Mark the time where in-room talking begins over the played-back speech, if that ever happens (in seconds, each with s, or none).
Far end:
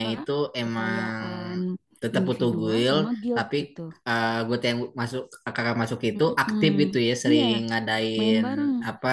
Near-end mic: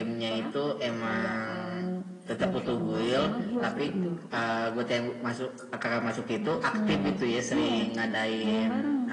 3.4 s